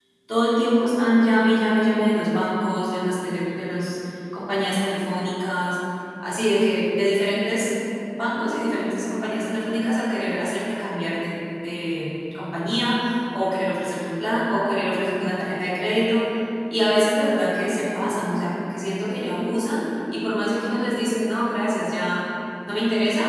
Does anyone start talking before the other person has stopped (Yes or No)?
No